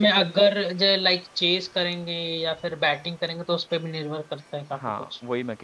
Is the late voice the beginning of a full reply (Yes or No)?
Yes